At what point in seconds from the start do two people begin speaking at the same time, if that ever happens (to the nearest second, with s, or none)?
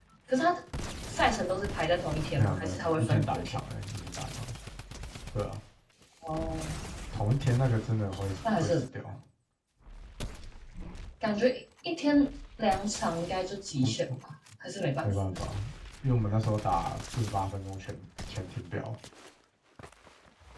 2 s